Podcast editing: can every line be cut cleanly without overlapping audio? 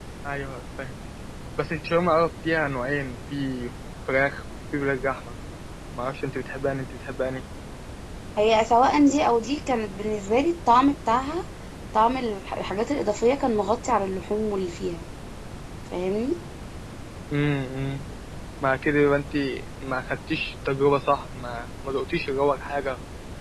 Yes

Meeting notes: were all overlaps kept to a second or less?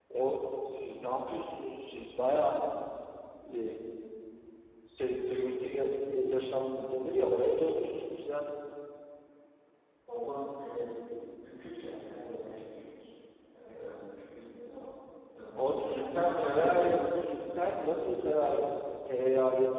No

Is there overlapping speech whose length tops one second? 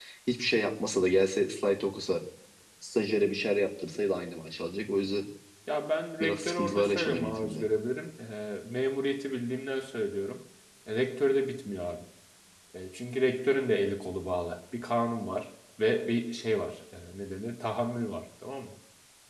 Yes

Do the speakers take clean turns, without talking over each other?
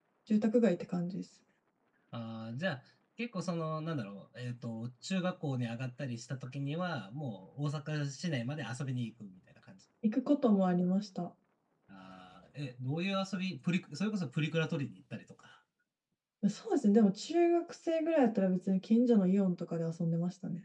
Yes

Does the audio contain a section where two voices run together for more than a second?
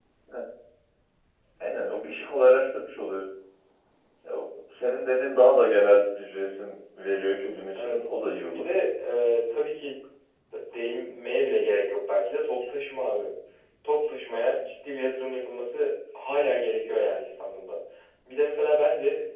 No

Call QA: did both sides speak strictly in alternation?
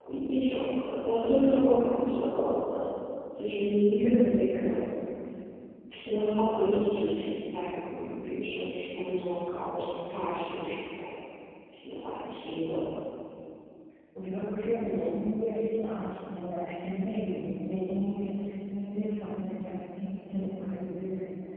Yes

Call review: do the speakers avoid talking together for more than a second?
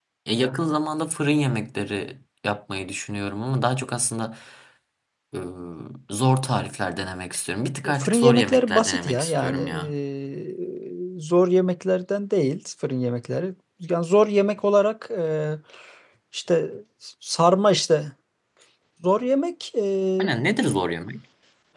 No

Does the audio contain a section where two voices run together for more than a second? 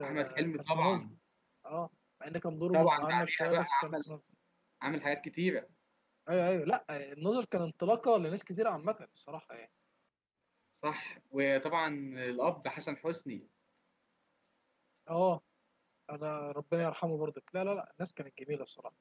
Yes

